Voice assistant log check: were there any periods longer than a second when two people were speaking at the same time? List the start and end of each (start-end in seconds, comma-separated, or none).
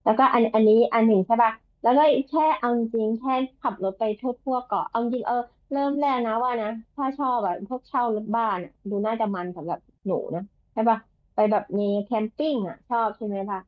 none